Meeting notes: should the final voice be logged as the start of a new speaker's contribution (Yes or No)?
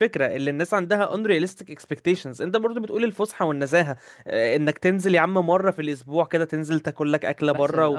No